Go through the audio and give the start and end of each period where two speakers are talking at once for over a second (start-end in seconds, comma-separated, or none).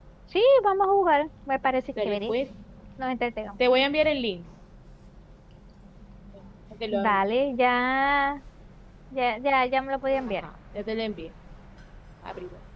none